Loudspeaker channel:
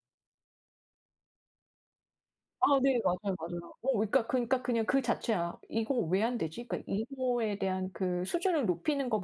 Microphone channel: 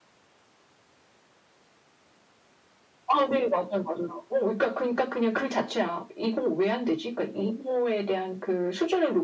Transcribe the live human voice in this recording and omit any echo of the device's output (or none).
none